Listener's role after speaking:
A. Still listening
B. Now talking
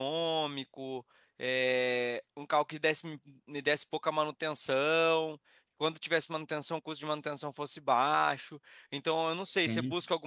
A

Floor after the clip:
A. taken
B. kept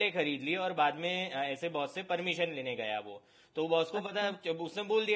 B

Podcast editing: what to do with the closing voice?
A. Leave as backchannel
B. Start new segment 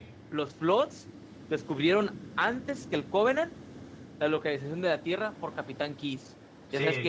B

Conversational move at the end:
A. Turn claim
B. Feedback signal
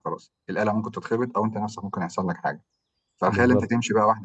B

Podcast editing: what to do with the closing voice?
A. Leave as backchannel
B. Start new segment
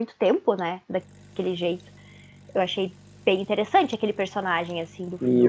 B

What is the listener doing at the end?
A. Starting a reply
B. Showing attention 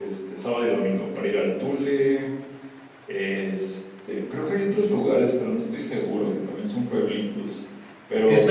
A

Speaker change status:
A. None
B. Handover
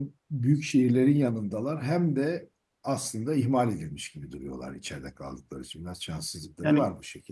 B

